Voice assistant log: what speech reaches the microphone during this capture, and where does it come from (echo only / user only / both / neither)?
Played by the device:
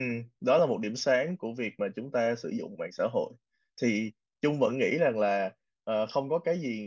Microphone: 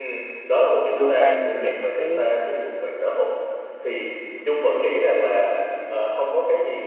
both